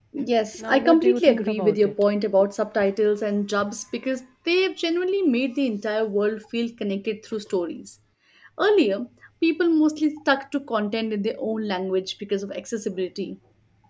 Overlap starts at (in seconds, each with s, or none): 0.6 s